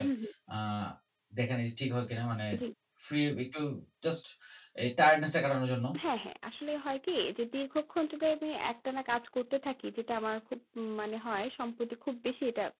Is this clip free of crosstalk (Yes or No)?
Yes